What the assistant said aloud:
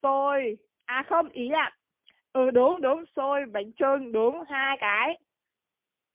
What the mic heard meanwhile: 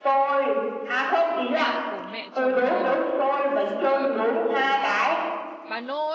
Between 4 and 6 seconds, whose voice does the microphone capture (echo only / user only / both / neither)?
both